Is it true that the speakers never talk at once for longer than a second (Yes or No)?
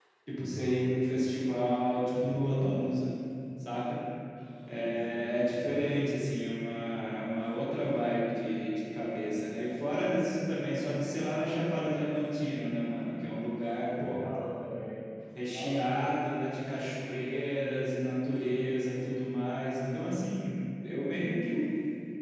Yes